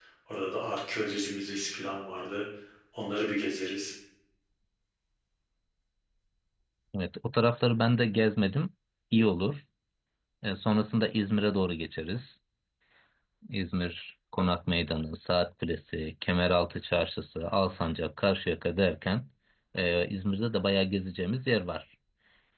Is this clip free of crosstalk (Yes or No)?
Yes